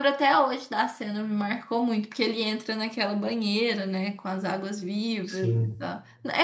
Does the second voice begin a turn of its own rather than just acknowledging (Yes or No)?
No